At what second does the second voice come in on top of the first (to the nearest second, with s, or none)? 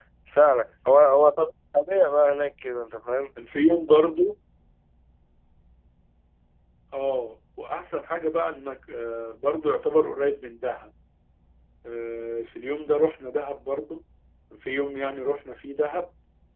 none